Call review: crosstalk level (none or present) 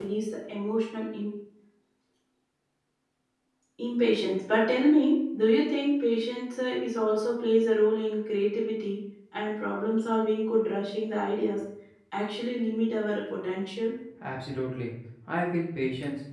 none